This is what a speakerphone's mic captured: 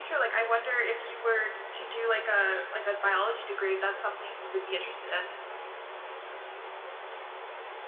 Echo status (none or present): present